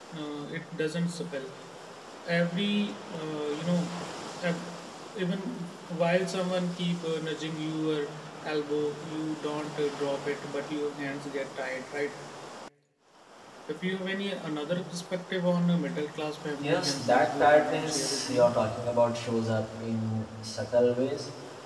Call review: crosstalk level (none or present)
present